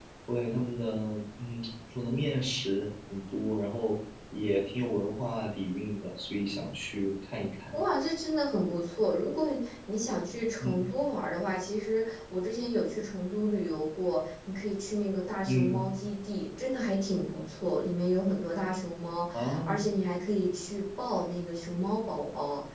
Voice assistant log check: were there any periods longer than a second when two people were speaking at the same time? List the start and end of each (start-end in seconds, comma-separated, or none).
none